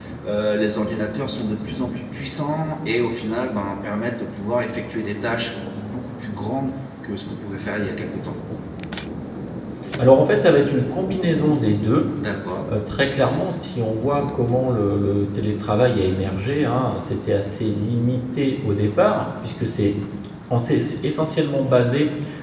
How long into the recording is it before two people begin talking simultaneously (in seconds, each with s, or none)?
none